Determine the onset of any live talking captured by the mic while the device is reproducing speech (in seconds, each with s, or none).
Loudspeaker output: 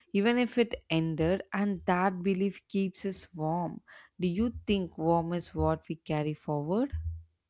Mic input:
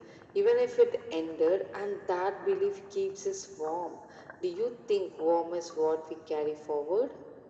none